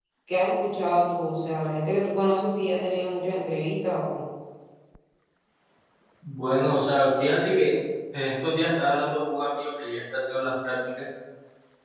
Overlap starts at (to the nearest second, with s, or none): none